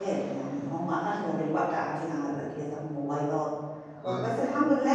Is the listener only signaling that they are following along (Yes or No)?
Yes